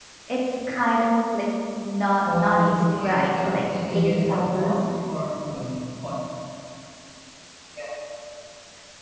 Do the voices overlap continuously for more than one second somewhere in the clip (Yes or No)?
Yes